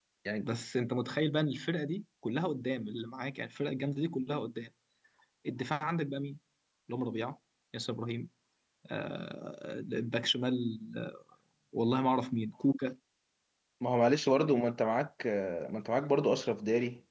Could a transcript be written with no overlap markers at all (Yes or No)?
Yes